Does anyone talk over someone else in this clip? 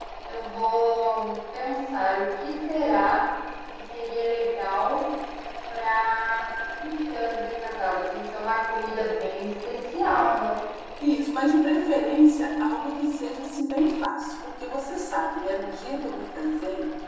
No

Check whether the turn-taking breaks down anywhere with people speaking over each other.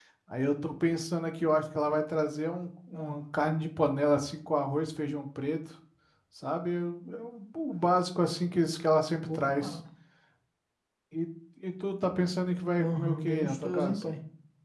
Yes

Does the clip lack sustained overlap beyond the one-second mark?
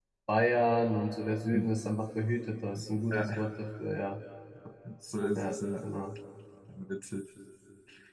Yes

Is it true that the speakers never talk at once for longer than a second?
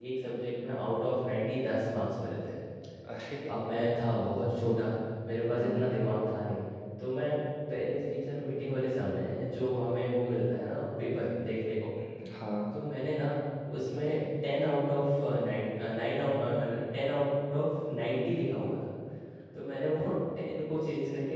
Yes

